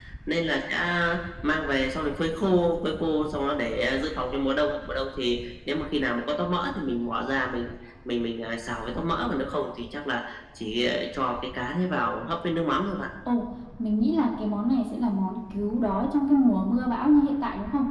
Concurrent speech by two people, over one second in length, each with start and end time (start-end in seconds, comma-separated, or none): none